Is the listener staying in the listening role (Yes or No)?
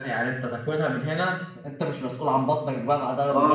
No